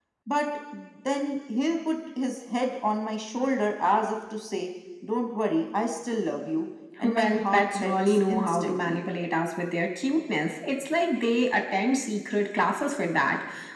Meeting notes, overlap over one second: present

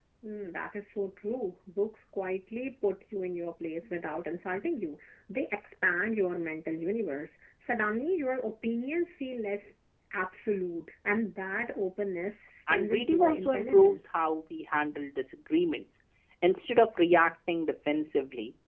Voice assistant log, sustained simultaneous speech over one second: present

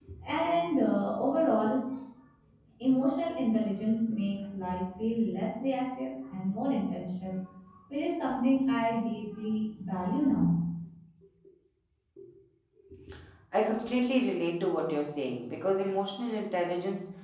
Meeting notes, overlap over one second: none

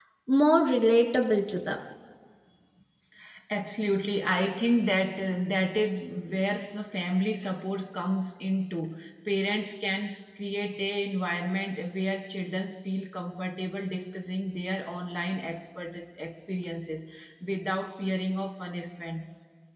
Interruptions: none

